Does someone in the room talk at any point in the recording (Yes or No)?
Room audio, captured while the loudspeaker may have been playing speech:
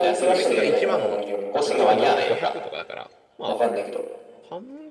Yes